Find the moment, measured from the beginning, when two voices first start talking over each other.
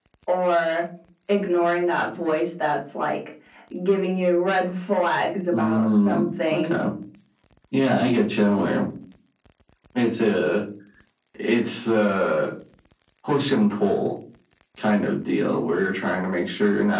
6 s

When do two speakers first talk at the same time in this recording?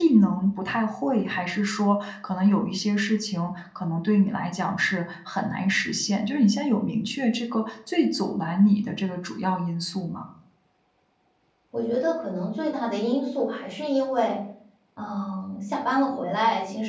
none

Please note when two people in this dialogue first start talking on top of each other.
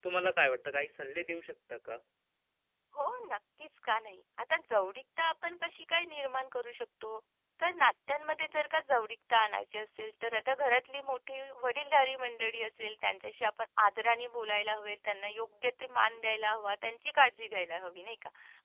none

